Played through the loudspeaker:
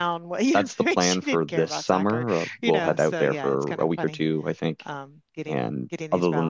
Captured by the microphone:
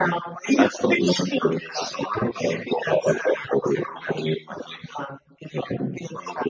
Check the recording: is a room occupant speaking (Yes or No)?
No